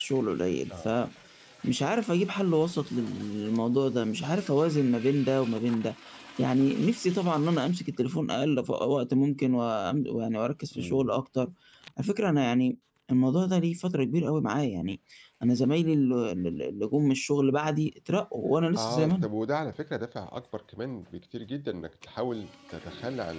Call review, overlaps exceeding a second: none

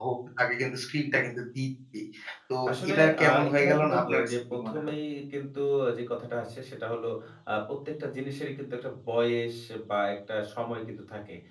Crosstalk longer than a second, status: present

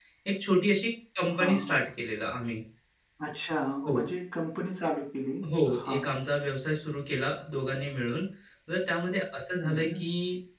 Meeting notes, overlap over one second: none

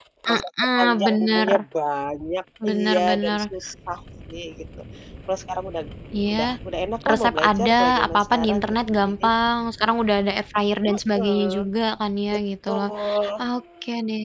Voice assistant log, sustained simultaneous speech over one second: present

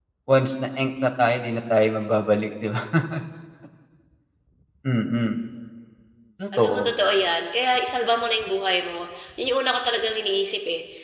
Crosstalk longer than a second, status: none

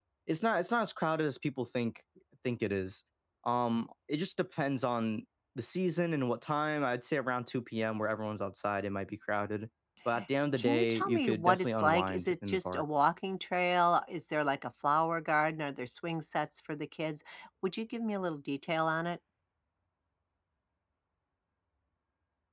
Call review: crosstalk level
present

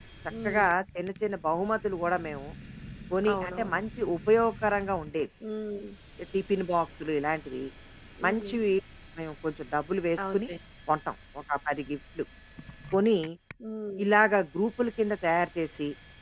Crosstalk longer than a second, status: none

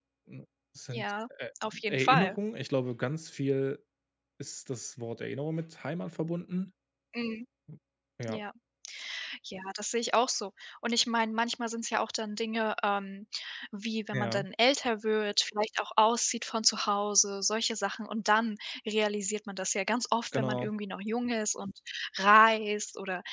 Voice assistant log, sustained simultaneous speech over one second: none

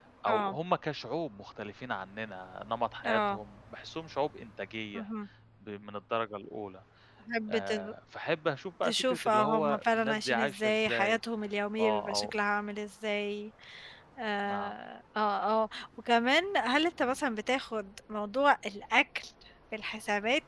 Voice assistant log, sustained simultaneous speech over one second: present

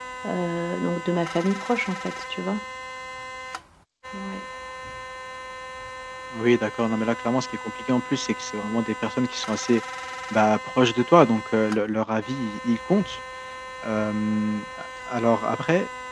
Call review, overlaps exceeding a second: none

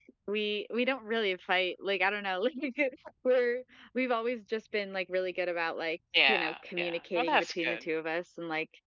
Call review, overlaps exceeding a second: present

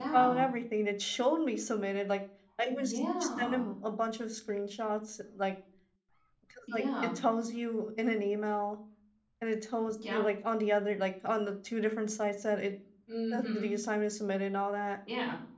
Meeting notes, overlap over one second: none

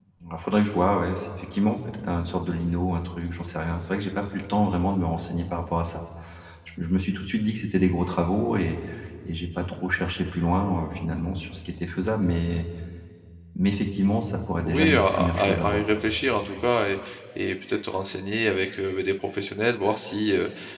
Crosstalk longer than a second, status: present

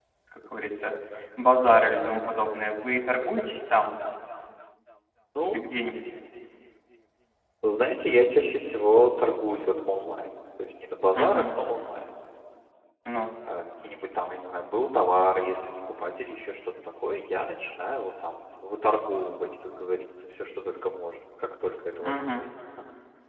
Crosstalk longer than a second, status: none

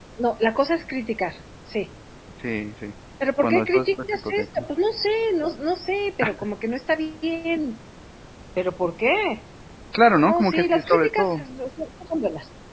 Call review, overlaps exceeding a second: present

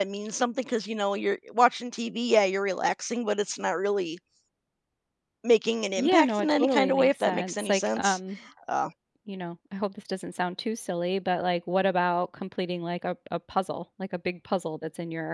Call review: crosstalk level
present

